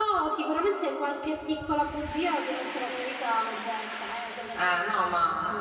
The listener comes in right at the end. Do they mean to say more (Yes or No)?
Yes